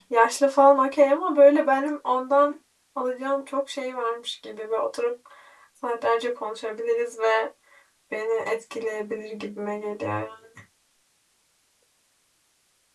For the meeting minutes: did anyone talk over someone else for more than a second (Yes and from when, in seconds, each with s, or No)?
No